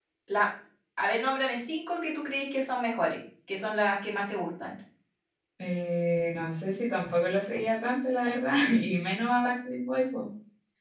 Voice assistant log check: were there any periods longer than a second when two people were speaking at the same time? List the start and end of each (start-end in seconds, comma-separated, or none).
none